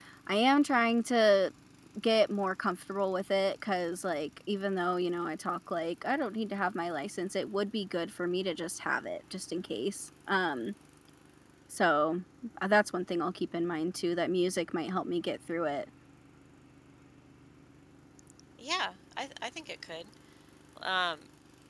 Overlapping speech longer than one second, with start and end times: none

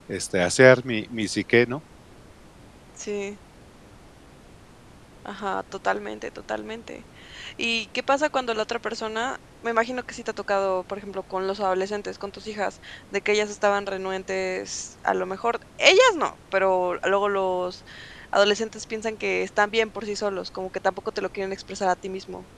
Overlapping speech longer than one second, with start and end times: none

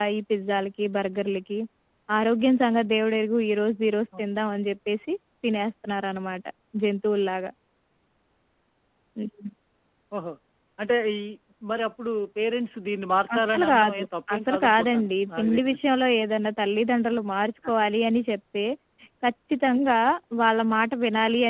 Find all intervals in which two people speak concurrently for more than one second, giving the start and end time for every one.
13.4-15.7

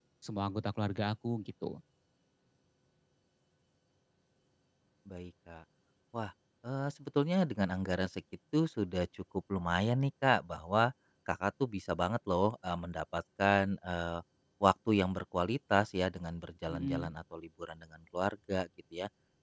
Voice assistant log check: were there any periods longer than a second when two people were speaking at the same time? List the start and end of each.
none

